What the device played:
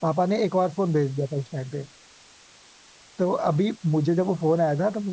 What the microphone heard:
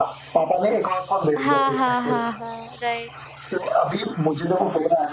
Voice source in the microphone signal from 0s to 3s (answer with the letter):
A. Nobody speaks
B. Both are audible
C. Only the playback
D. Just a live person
B